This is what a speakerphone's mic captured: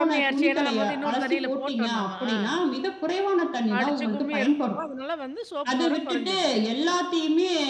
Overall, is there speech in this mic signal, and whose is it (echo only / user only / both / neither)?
both